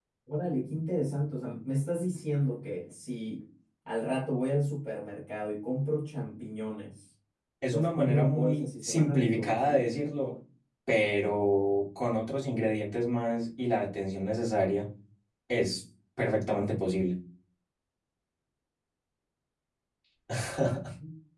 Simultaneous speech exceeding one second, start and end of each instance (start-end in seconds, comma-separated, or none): 7.7-9.9